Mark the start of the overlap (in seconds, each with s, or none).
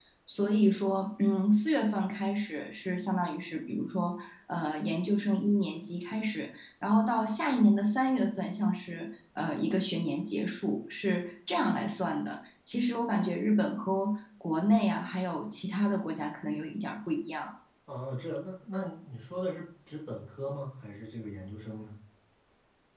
none